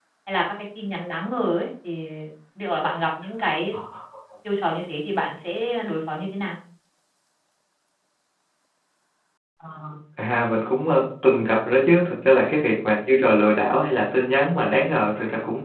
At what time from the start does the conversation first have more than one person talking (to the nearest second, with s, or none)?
none